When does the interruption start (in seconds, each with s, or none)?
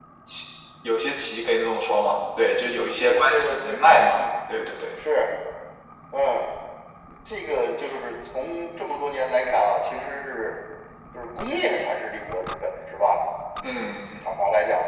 2.9 s